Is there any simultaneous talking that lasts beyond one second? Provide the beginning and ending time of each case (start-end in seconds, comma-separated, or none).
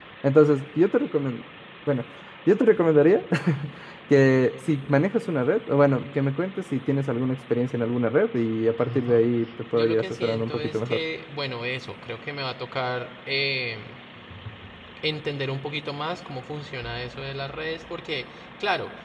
9.7-11.0